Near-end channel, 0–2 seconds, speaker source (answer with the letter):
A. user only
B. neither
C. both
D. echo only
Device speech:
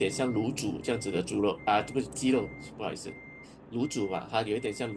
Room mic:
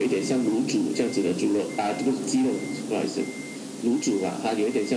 D